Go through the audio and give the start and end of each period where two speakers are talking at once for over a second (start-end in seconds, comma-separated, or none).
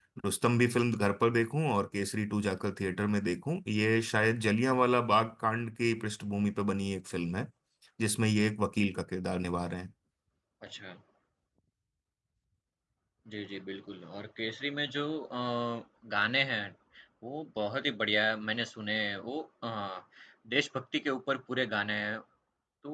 none